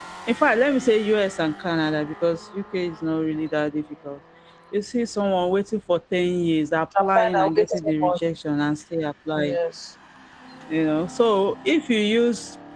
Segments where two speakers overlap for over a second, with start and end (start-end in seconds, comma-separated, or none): 7.0-8.2